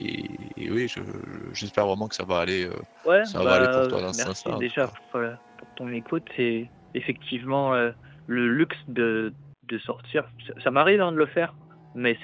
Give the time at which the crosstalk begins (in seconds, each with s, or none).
3.2 s